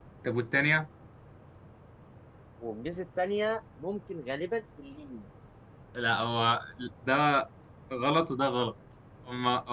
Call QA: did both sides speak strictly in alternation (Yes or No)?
Yes